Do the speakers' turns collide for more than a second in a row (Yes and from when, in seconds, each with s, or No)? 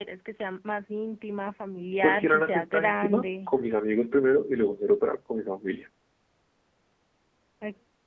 Yes, from 2.0 s